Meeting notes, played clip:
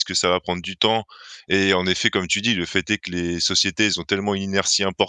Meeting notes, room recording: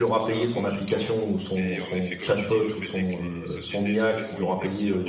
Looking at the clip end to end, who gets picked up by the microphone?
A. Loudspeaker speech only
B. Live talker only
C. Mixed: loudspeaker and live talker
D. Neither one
C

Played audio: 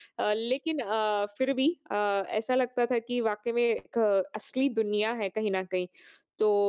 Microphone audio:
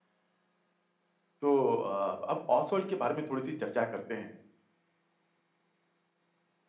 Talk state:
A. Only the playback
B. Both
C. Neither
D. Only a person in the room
D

